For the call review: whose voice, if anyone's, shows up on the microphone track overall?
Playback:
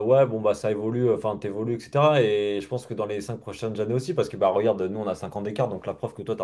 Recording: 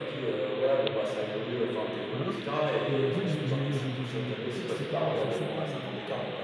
both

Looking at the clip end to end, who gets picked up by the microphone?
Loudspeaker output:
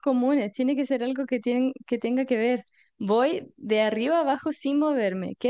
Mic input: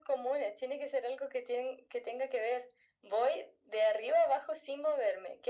echo only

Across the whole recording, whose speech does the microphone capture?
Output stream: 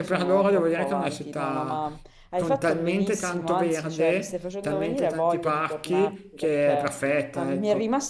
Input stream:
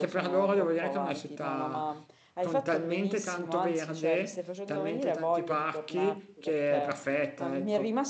echo only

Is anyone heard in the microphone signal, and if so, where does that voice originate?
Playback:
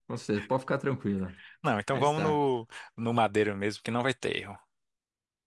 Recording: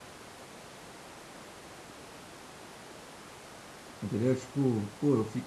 user only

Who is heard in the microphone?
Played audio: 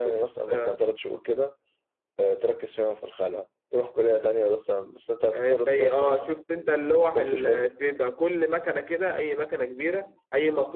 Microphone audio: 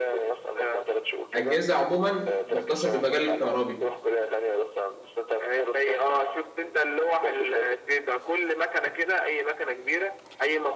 both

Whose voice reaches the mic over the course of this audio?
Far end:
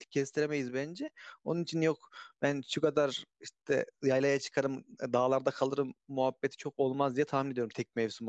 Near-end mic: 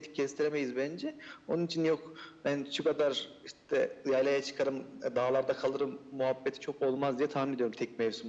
echo only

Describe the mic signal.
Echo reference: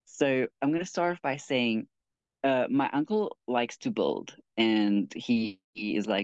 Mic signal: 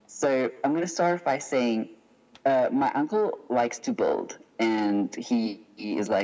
echo only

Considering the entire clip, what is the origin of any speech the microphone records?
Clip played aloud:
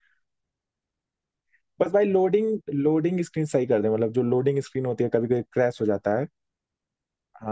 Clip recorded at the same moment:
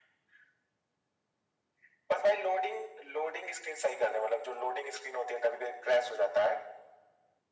echo only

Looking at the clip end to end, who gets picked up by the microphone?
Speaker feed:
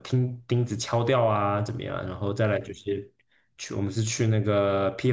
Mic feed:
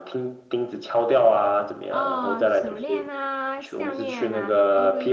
both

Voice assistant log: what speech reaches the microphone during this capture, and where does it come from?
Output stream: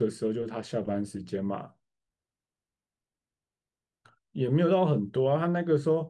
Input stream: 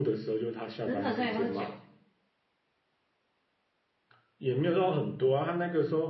both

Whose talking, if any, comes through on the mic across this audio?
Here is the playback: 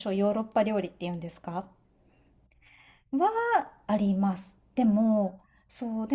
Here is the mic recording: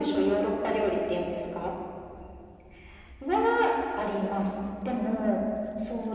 echo only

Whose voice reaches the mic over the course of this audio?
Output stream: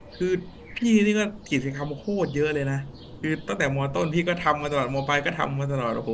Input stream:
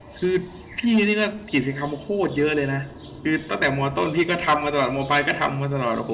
echo only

